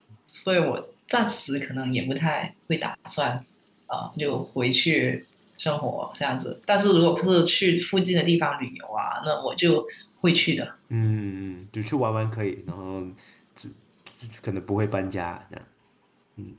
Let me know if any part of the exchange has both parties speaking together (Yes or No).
No